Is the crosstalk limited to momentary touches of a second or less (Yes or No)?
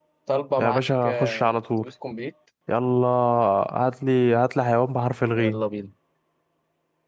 No